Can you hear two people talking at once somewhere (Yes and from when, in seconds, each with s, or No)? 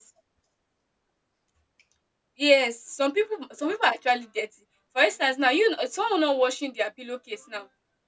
No